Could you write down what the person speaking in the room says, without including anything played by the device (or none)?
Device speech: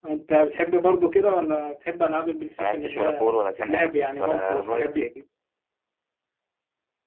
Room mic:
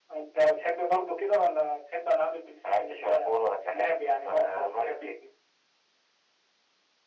none